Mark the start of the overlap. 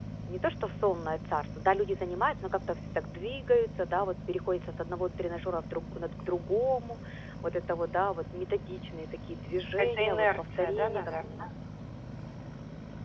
9.8 s

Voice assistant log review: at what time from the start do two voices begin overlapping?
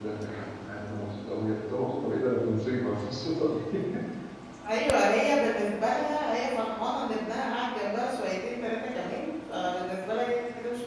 none

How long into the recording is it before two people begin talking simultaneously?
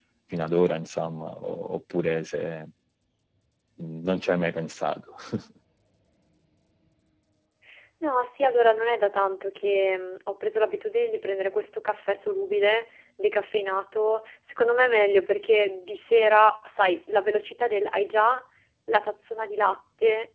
none

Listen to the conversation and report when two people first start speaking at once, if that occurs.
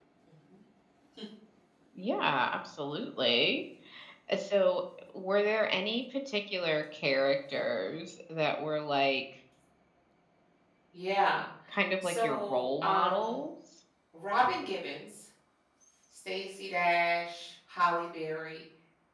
12.0 s

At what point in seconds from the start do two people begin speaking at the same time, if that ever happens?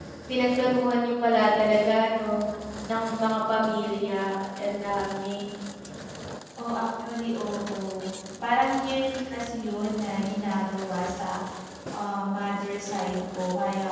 none

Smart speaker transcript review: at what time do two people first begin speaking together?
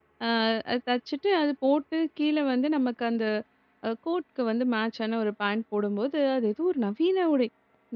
none

